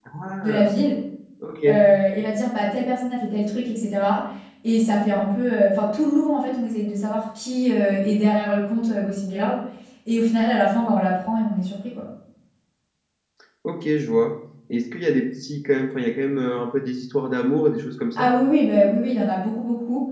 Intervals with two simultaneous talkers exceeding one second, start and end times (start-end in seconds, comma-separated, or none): none